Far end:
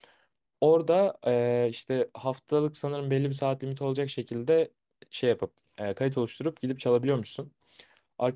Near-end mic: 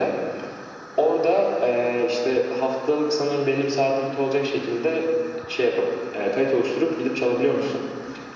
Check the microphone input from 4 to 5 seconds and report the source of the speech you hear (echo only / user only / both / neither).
echo only